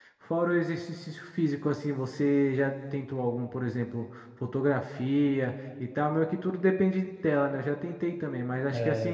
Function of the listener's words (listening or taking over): listening